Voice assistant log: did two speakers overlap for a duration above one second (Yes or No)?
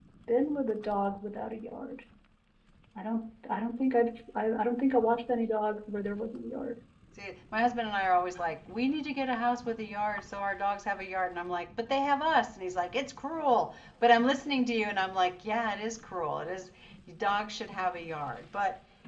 No